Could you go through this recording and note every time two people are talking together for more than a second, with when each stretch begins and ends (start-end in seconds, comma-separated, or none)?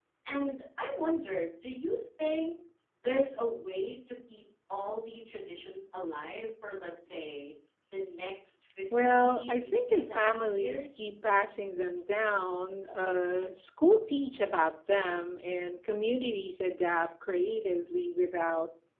9.1-11.1